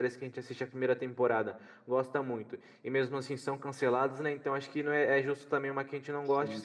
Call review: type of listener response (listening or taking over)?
listening